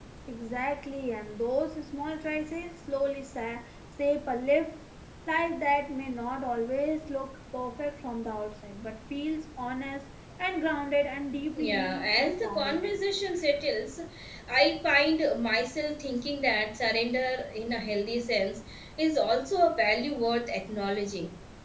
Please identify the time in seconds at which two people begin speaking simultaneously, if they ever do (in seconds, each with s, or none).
11.5 s